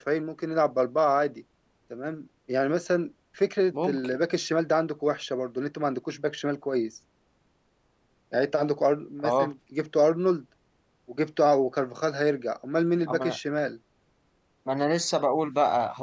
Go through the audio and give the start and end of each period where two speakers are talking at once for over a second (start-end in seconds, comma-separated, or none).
none